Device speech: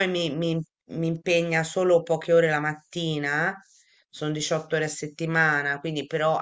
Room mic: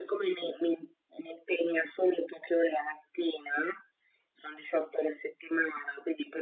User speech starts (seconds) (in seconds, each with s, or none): none